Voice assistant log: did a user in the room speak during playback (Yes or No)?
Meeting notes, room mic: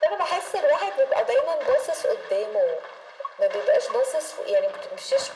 No